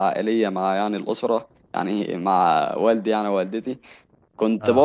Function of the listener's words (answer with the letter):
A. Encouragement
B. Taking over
A